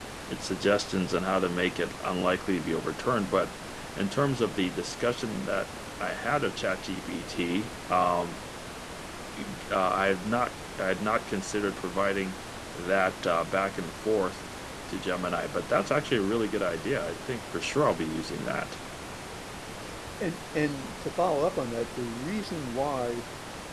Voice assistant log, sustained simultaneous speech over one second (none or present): none